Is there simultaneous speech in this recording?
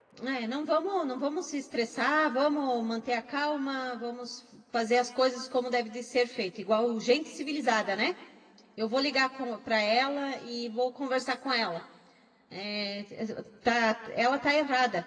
No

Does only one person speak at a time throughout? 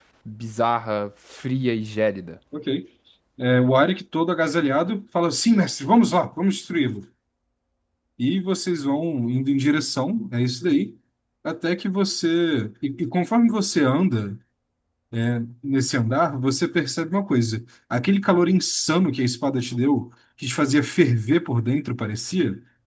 Yes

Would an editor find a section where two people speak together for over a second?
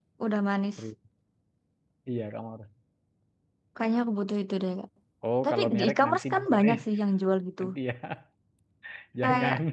Yes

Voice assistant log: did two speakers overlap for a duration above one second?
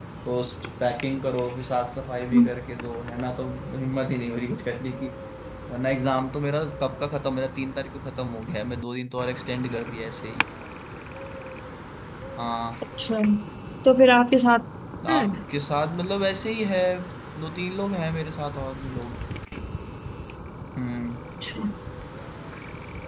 No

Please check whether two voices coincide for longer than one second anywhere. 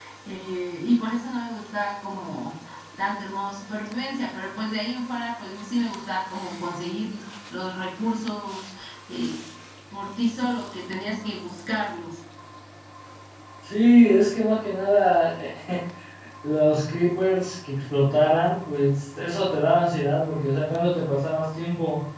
No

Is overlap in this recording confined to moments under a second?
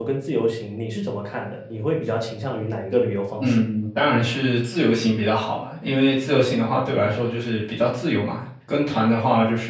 Yes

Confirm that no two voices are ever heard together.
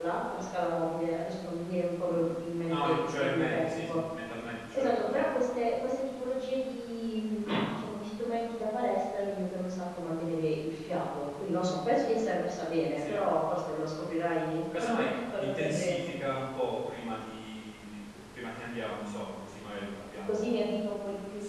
No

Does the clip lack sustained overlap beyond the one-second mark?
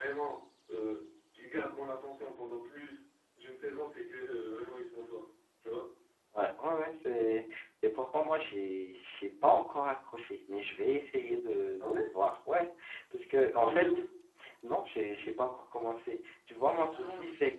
Yes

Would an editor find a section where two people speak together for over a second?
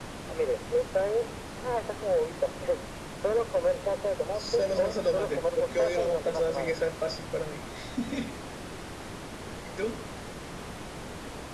Yes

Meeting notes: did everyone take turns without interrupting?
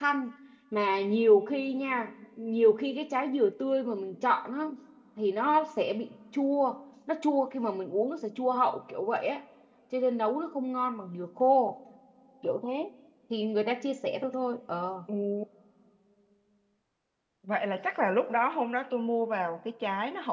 Yes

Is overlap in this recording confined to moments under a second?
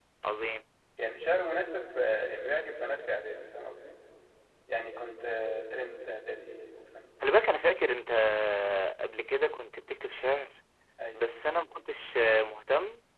Yes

